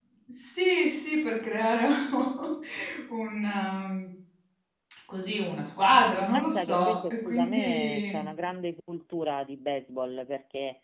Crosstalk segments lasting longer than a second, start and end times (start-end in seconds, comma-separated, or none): 6.3-8.2